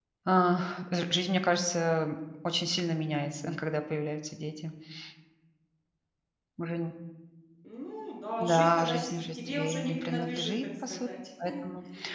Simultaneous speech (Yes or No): Yes